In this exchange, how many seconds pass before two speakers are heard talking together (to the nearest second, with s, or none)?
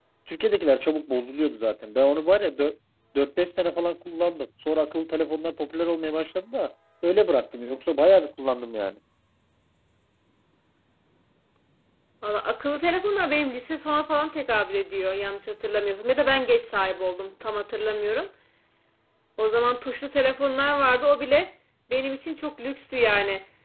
none